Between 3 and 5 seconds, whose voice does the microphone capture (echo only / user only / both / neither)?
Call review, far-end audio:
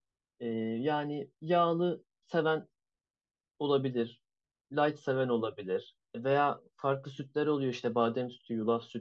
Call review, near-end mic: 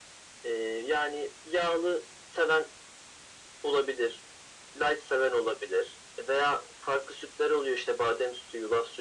echo only